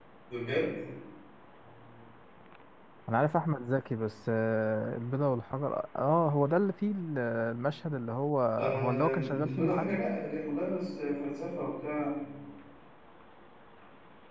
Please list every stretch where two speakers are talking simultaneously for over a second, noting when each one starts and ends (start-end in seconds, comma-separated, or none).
8.8-10.0